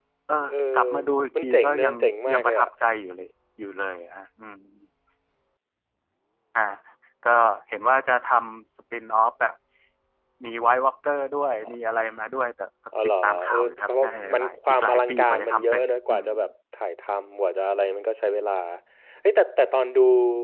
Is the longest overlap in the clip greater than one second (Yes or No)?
Yes